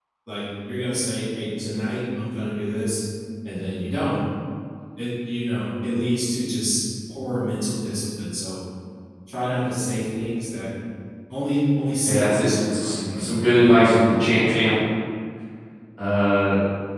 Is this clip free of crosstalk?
No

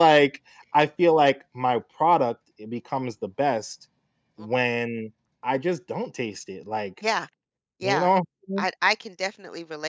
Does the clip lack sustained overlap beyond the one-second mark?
Yes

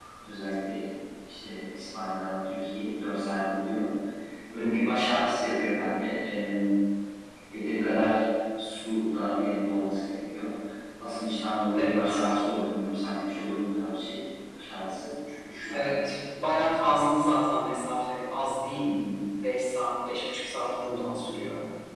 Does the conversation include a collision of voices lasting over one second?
No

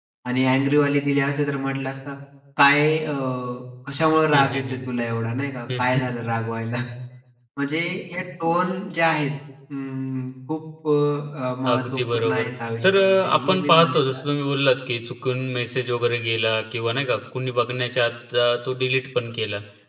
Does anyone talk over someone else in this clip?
Yes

